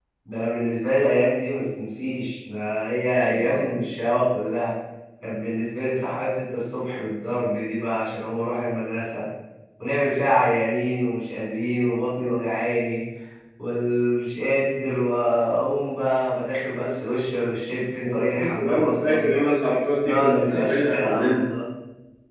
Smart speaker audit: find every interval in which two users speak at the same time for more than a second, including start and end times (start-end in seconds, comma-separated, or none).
18.1-19.3, 20.0-21.4